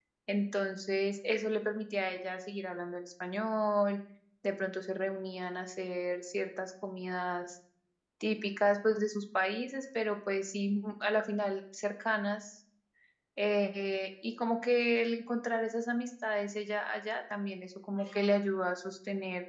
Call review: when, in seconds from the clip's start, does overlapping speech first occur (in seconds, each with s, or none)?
none